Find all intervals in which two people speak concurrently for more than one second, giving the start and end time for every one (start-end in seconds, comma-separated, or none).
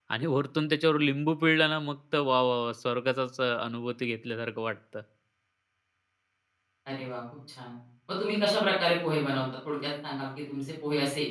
none